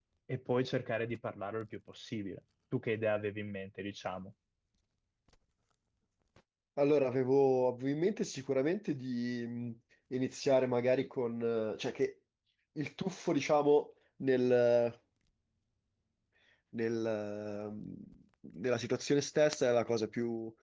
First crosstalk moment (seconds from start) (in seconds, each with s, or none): none